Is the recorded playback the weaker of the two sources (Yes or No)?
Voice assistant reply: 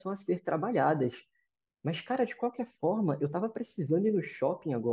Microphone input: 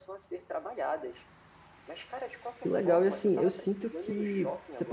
Yes